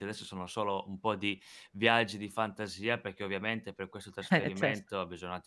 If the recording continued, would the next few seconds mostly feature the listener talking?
No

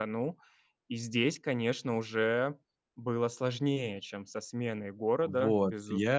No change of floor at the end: No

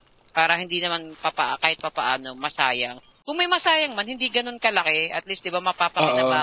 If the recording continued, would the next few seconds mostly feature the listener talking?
Yes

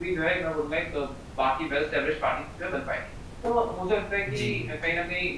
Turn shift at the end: No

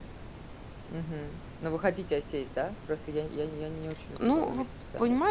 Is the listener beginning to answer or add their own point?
Yes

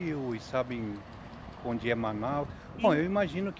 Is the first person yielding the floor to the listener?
No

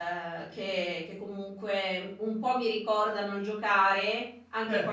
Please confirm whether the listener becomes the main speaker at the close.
No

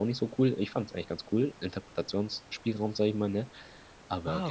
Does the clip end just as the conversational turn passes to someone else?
Yes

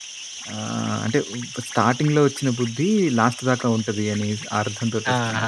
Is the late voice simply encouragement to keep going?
No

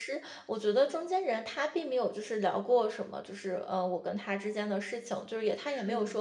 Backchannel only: Yes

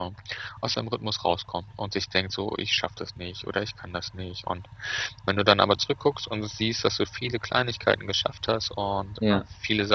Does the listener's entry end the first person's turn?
No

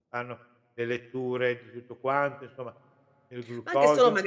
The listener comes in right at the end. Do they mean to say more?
Yes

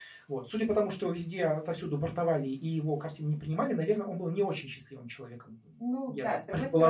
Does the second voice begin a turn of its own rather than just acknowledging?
Yes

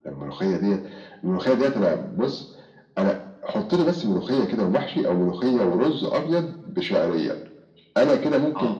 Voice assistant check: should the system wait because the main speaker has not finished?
Yes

